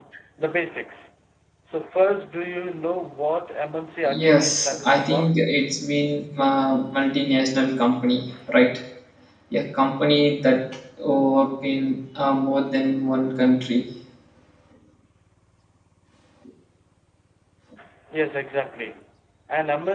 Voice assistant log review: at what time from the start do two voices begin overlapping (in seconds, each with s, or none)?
4.0 s